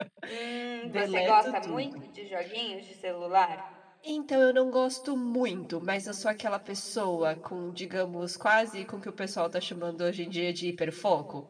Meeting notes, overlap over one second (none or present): present